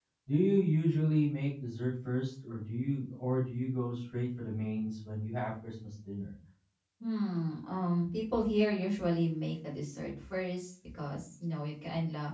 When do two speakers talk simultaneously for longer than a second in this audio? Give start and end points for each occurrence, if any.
none

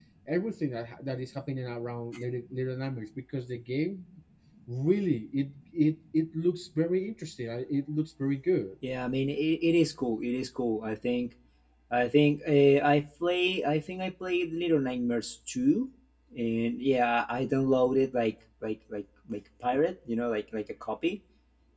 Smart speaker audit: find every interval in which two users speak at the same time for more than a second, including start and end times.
none

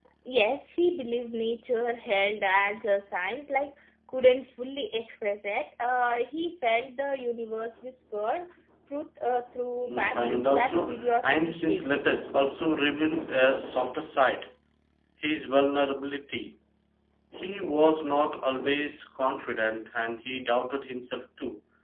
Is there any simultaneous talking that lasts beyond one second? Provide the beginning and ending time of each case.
9.9-12.0

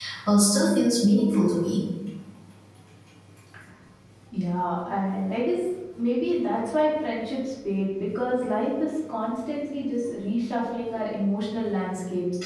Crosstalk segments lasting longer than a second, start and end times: none

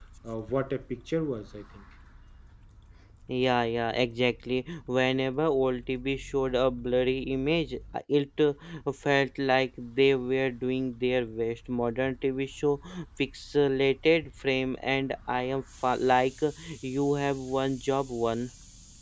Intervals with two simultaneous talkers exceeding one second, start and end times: none

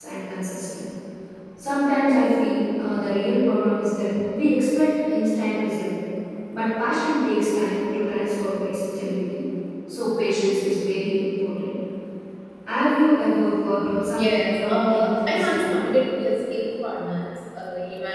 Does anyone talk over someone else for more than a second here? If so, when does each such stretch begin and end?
14.1-15.9

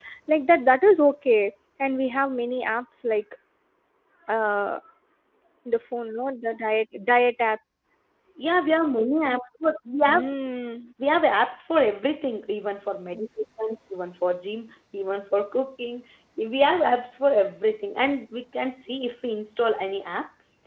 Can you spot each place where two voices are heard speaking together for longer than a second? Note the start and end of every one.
none

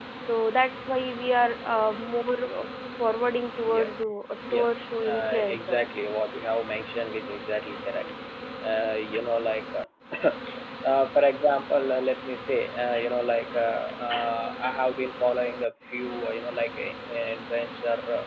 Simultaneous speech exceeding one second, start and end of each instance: 4.5-5.8

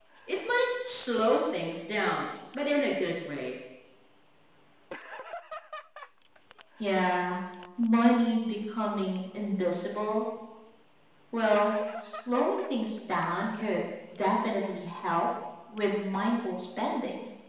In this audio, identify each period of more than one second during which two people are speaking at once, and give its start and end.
none

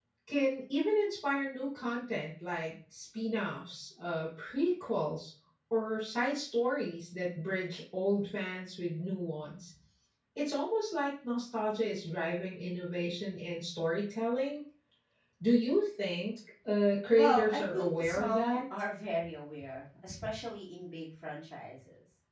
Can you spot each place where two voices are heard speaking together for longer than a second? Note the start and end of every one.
17.2-18.6

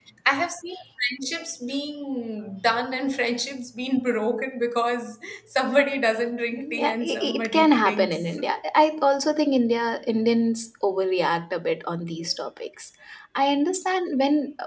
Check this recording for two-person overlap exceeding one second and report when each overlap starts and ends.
6.5-8.4

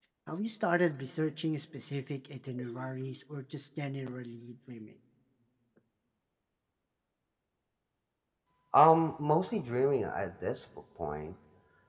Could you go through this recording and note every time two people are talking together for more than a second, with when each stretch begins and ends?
none

